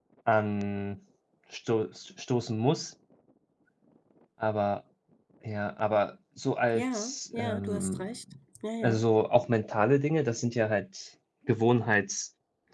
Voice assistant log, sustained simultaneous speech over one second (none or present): present